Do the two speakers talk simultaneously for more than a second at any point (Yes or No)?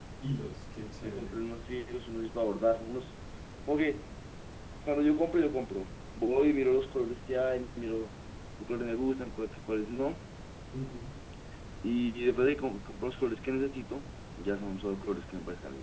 No